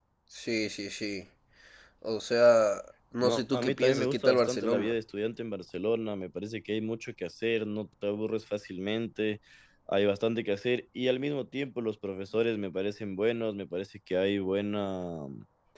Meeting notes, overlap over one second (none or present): present